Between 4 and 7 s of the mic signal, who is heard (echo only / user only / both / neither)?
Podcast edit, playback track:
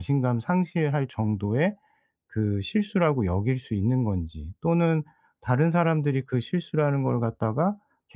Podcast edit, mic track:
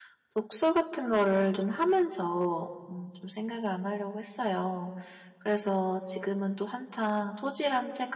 user only